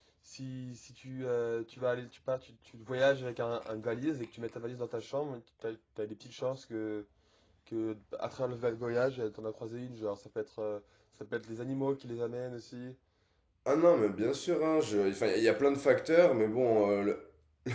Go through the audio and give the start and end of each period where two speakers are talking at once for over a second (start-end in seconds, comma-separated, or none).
none